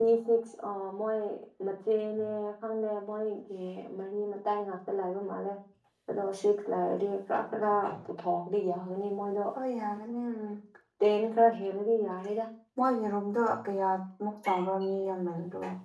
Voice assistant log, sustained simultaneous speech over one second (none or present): none